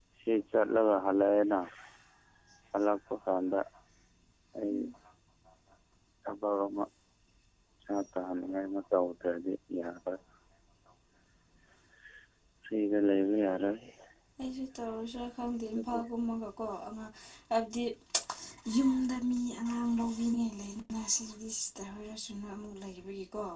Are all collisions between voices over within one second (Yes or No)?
Yes